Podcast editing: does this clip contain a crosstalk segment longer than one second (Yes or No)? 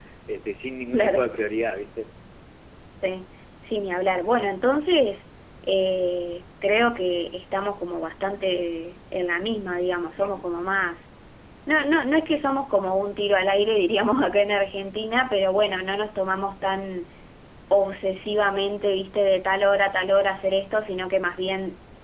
No